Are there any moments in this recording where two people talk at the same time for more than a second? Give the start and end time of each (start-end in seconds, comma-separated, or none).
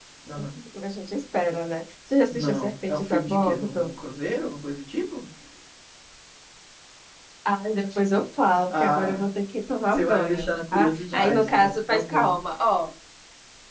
2.3-3.7, 9.9-12.3